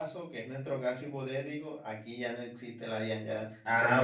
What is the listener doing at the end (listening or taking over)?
taking over